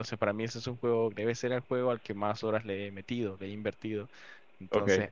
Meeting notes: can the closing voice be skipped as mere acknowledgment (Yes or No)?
Yes